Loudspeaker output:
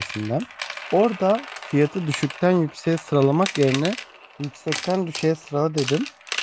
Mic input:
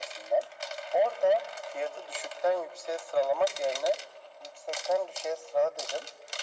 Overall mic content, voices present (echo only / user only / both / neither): echo only